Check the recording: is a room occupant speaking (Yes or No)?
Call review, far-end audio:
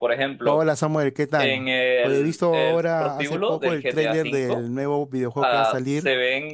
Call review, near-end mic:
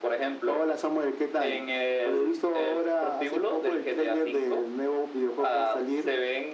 No